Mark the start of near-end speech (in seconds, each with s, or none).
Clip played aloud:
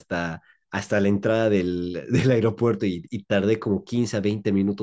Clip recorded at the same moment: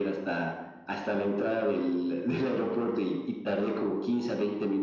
none